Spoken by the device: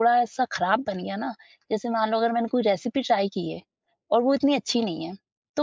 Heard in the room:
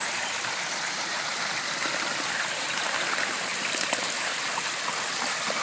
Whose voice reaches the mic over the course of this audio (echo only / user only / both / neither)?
neither